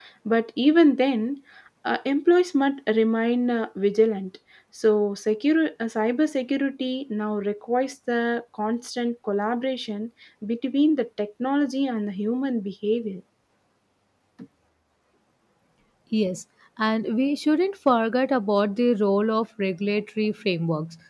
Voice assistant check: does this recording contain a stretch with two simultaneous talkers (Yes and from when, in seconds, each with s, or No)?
No